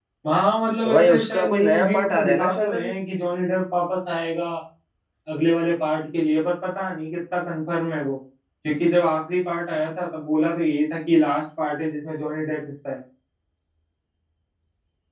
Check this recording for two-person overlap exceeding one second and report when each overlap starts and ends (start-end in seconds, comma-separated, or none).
0.8-2.7